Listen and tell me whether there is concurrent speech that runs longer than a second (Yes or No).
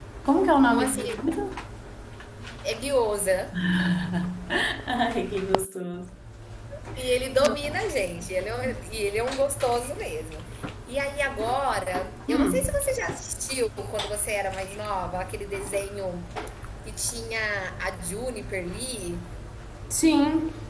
No